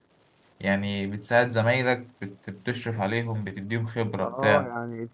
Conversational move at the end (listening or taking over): taking over